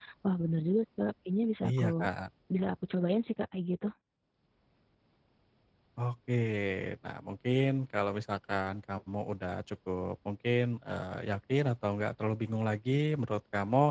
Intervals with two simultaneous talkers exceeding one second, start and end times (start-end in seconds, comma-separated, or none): none